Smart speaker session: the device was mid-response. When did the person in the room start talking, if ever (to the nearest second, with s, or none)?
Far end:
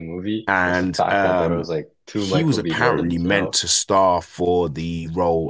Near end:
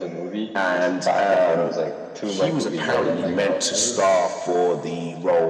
3 s